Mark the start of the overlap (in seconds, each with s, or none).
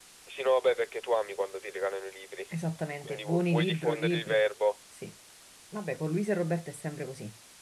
3.0 s